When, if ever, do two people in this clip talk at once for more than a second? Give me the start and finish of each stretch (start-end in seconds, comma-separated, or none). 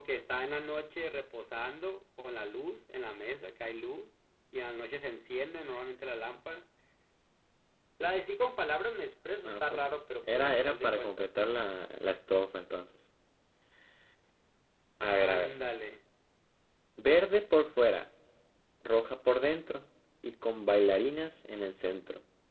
9.4-11.3